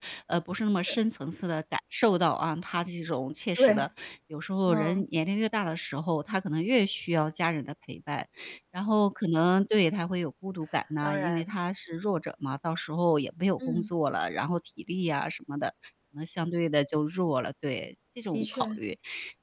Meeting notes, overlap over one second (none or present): none